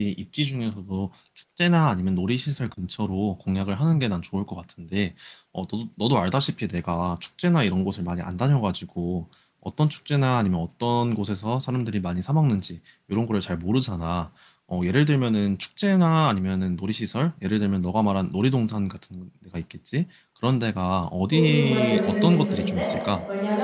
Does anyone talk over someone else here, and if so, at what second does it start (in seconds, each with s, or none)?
21.3 s